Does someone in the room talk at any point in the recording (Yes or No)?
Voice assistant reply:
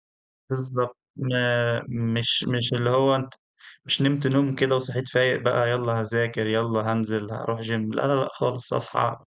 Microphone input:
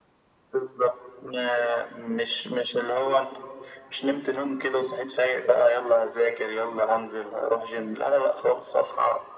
No